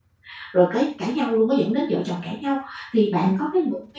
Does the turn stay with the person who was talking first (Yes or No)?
Yes